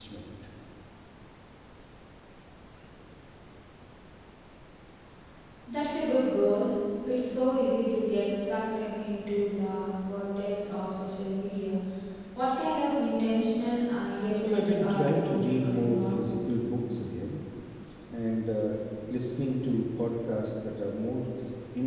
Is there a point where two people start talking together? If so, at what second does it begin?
14.4 s

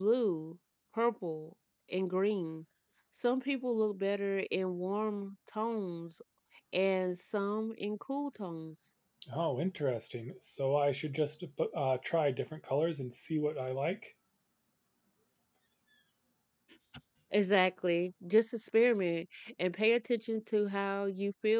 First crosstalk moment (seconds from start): none

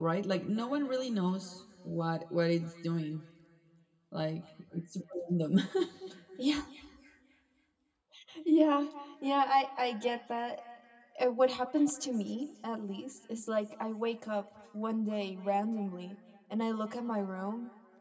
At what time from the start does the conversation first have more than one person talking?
none

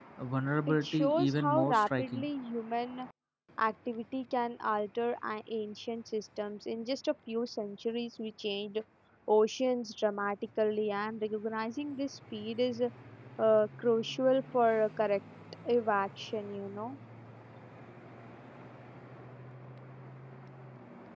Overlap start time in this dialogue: 0.7 s

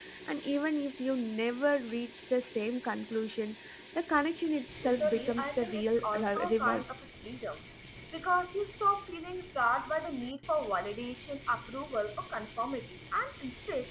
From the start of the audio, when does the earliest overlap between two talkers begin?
4.8 s

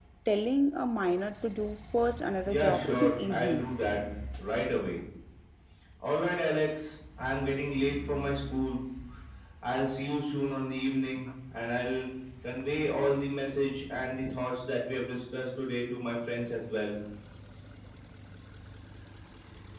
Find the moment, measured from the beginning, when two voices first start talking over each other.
2.4 s

